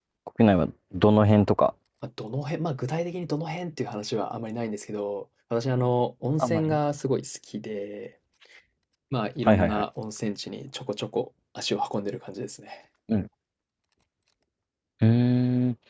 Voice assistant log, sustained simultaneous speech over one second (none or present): none